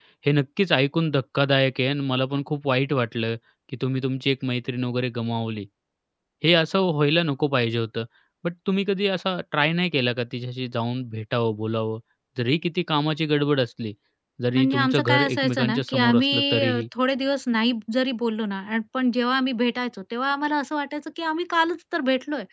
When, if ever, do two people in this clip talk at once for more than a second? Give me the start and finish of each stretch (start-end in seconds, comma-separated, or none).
14.5-16.8